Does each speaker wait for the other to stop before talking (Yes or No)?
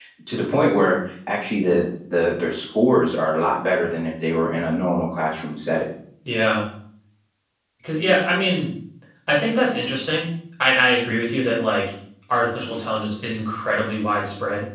Yes